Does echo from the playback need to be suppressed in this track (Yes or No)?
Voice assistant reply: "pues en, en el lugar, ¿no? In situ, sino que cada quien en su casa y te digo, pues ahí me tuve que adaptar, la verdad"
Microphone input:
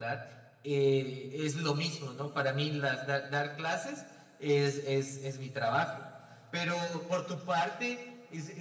No